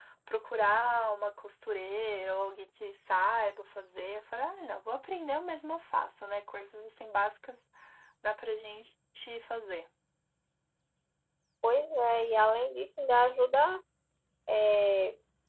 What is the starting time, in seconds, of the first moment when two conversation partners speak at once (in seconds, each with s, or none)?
none